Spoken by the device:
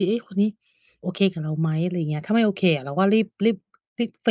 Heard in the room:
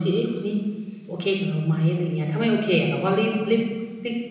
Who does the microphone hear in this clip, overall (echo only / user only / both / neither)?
echo only